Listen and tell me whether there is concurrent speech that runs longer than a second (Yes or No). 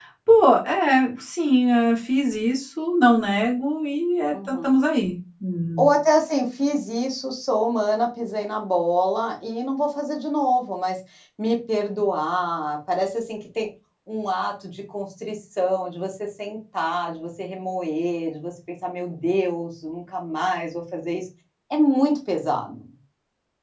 No